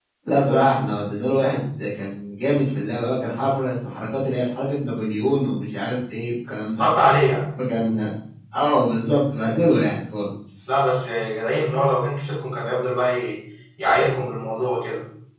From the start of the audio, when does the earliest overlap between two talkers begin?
none

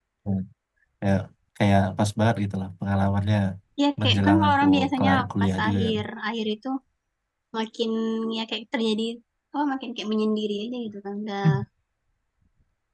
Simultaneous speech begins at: 4.0 s

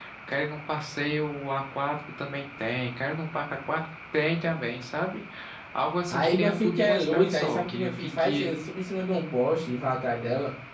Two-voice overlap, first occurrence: 6.1 s

